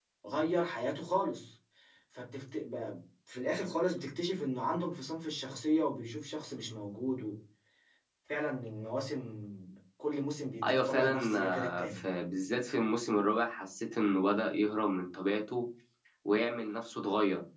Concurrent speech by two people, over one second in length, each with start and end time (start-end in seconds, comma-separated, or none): 10.7-12.0